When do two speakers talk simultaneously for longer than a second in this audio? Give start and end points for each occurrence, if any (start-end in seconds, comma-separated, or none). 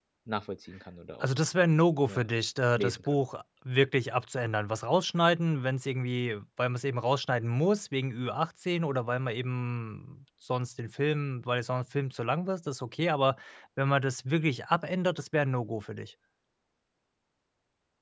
none